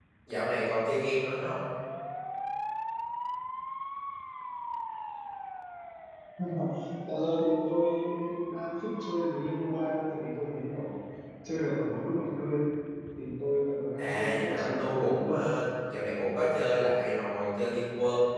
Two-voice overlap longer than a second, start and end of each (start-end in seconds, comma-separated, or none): 14.0-15.4